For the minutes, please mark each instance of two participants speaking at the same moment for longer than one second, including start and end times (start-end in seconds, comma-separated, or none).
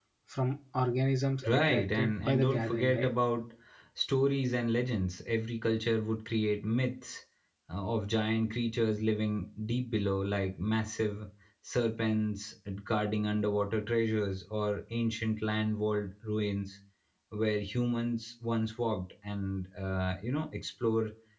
1.4-3.1